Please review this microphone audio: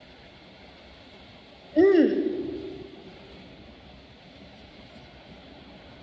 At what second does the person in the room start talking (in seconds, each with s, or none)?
1.8 s